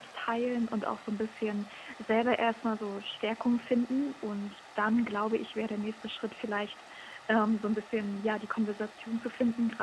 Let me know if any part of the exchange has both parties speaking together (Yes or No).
No